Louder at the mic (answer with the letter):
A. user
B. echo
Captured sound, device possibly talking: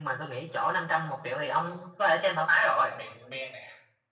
B